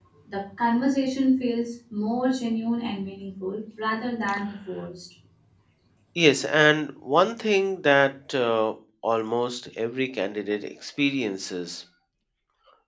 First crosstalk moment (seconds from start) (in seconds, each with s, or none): none